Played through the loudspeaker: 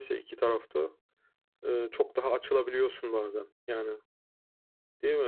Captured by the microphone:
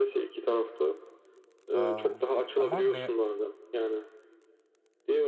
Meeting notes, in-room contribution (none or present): present